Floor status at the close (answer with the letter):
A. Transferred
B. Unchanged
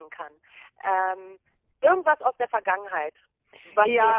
A